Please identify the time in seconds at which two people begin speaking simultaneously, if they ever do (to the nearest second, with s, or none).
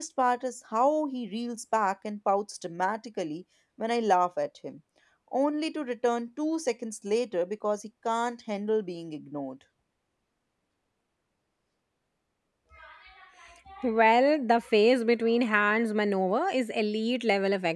none